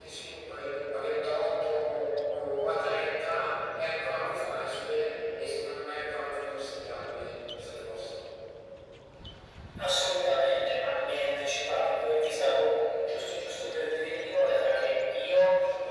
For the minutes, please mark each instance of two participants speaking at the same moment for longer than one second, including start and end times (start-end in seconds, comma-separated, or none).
none